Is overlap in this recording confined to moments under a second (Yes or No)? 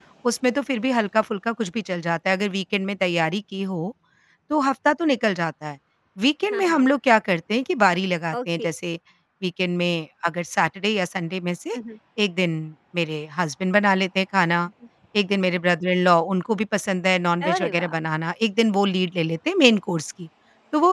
Yes